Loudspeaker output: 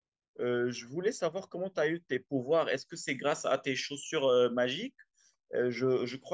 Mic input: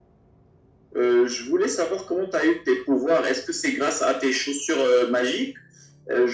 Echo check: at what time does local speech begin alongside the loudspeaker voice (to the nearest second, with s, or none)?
none